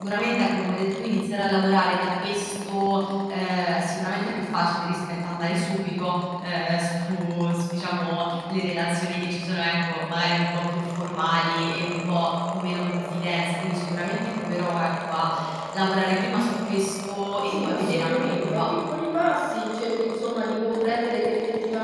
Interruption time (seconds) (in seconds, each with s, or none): 17.5 s